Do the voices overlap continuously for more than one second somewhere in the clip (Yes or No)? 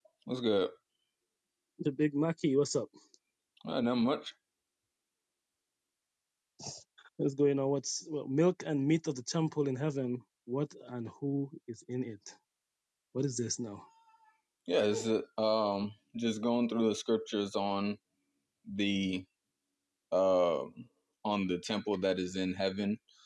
No